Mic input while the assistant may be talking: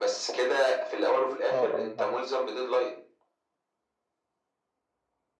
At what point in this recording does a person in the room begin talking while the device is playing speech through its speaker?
2 s

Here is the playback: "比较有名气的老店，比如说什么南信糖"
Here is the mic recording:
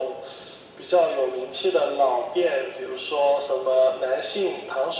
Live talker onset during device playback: none

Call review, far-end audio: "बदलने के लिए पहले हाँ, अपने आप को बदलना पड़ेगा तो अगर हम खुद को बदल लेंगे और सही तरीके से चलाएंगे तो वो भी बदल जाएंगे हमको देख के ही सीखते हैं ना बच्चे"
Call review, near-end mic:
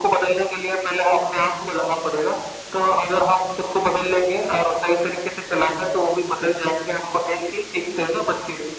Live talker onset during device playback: none

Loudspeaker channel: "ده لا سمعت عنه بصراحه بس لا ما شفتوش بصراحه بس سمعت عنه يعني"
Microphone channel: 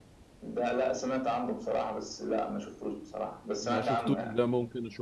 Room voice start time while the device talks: 4 s

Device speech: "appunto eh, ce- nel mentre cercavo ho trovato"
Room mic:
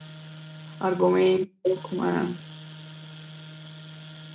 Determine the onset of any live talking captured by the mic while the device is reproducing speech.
1 s

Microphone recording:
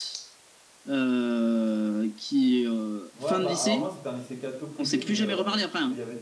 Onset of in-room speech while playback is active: 3 s

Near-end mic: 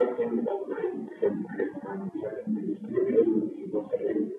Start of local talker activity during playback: none

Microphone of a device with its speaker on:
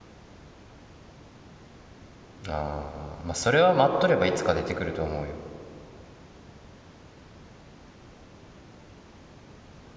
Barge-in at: 2 s

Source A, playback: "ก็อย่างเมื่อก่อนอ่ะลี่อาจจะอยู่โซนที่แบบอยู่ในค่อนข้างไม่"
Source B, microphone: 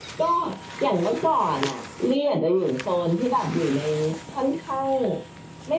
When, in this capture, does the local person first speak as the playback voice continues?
none

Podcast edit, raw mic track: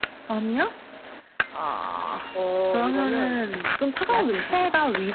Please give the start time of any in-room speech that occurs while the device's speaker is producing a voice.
none

